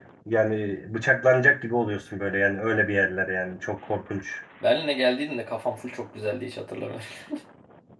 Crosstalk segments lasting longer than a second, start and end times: none

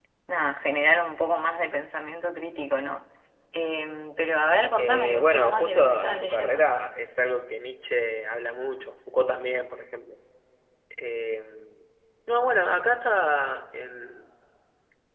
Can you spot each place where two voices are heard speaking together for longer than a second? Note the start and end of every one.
4.8-6.7

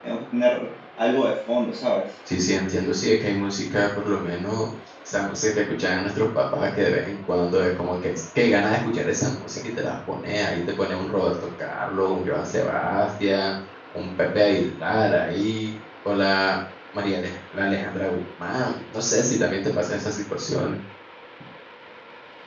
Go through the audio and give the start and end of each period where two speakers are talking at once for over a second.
none

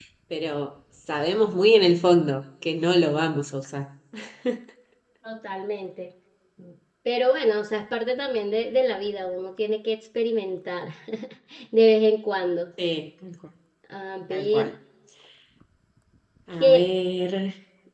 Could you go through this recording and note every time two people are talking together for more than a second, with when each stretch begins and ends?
none

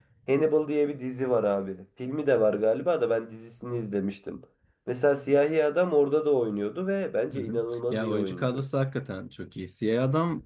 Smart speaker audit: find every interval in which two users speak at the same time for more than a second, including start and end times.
7.3-8.6

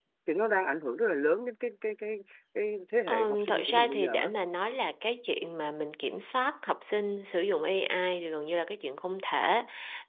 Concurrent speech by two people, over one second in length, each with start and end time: 3.1-4.3

